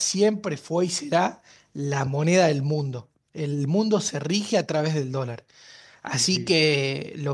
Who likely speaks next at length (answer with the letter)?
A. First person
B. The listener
A